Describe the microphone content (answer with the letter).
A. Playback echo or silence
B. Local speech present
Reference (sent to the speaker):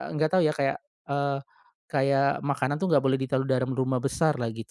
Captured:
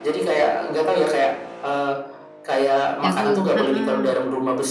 B